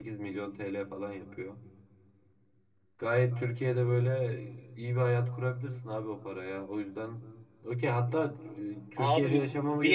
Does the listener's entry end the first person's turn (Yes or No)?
Yes